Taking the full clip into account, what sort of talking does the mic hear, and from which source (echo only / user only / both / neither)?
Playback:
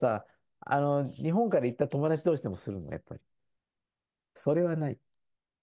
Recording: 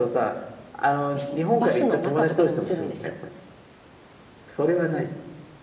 both